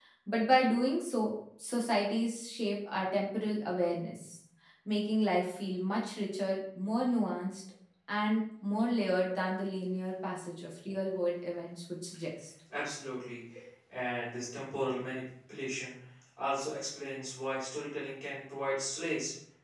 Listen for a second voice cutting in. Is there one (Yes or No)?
No